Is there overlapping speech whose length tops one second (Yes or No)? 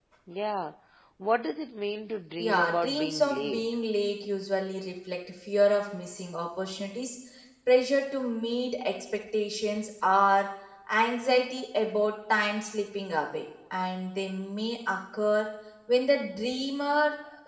Yes